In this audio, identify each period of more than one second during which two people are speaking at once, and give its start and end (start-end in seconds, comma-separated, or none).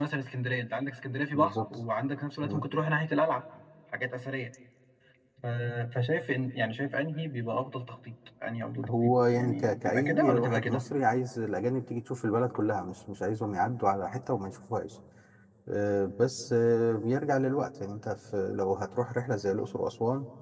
8.9-10.8